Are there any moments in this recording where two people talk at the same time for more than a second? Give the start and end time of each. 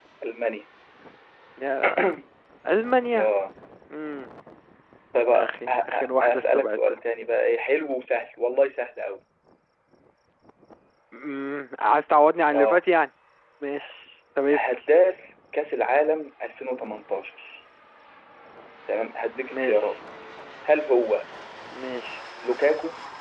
5.3-7.0

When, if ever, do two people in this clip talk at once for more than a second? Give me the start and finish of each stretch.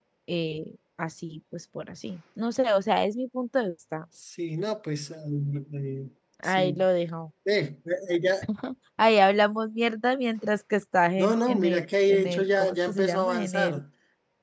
11.2-13.8

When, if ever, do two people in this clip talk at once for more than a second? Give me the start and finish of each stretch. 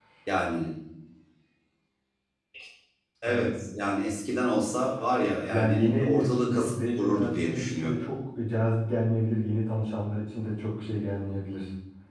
5.5-8.0

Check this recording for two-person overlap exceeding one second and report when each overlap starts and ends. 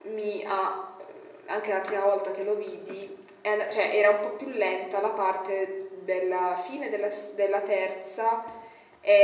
none

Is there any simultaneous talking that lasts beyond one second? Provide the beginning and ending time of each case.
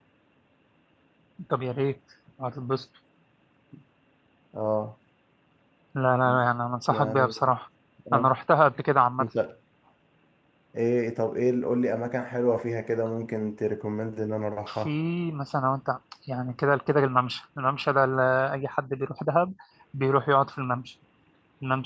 none

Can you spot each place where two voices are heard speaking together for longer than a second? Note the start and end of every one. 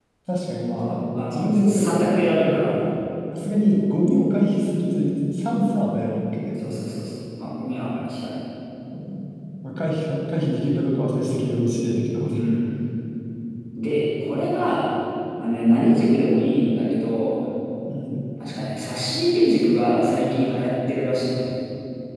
0.8-2.2

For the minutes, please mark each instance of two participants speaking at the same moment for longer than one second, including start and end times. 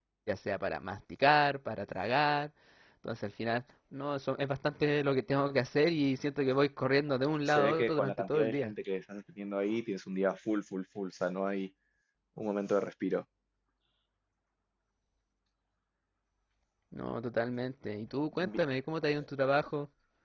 7.5-8.7

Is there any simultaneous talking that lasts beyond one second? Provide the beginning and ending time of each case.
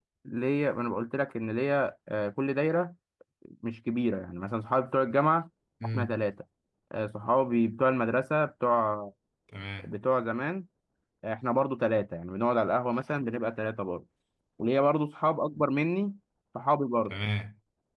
none

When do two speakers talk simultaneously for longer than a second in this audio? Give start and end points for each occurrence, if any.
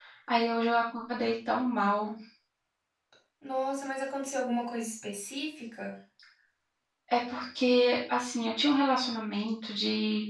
none

